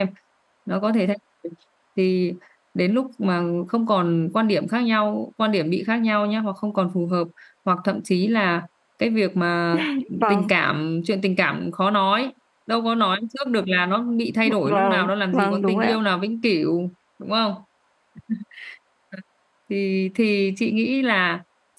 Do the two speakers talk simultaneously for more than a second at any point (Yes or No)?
Yes